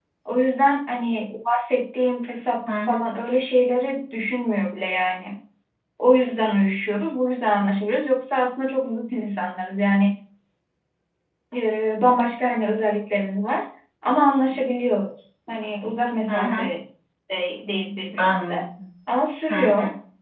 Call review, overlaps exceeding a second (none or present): none